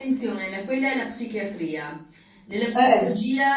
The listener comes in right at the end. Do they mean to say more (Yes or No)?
No